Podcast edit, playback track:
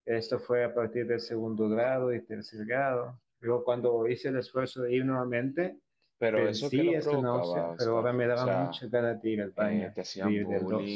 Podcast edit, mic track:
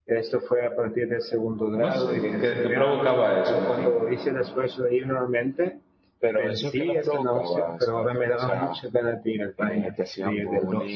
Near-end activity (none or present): present